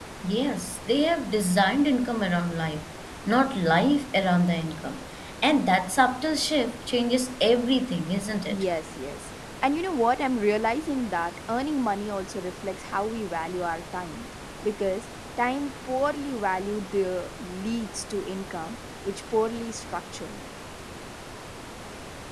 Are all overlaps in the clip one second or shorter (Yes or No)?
Yes